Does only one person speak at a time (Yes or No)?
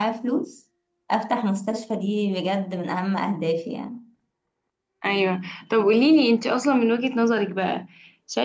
Yes